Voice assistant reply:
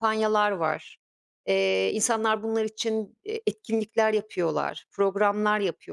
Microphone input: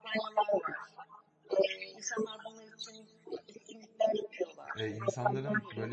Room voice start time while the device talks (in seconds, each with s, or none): 4.8 s